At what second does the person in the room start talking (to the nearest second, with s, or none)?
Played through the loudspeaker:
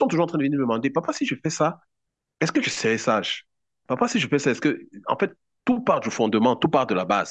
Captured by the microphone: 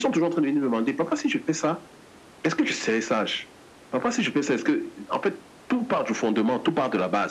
none